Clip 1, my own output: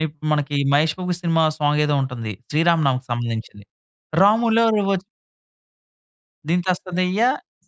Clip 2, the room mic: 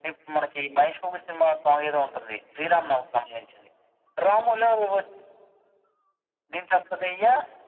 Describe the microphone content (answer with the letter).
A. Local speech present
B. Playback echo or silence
B